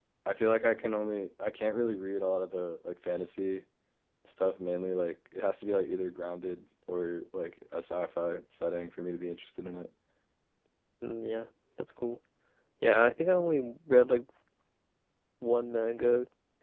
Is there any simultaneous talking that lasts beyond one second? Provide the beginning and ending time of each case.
none

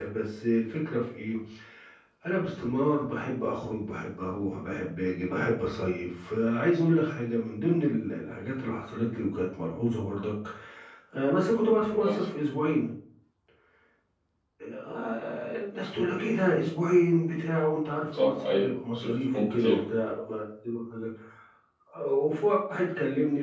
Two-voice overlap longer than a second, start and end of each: 18.1-19.8

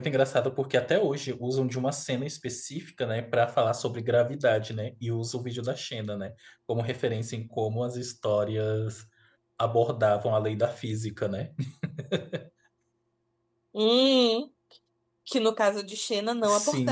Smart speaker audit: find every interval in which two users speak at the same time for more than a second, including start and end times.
none

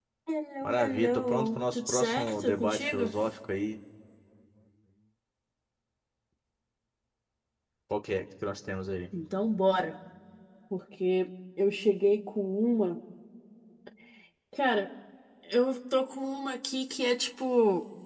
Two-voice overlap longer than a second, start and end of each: 0.6-3.1

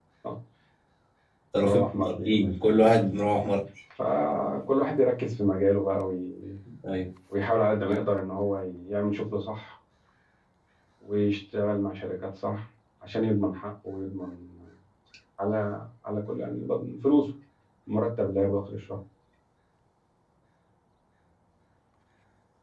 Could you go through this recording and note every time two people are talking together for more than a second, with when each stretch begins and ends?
1.6-2.9

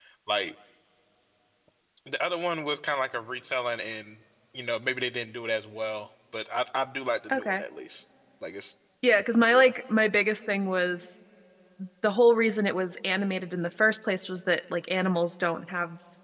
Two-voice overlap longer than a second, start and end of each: none

